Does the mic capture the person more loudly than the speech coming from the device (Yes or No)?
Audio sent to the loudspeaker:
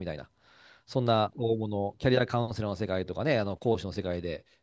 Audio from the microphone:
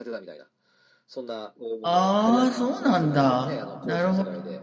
Yes